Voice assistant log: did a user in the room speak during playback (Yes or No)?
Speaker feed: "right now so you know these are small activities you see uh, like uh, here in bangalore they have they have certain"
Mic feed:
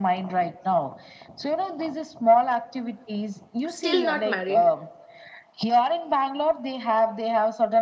Yes